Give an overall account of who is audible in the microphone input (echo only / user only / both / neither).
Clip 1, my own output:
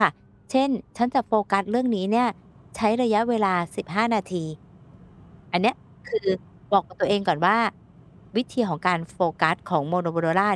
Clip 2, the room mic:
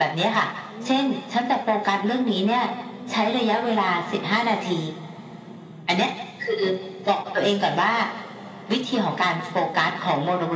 both